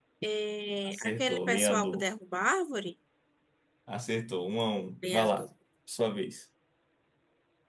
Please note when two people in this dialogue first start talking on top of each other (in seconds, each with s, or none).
0.8 s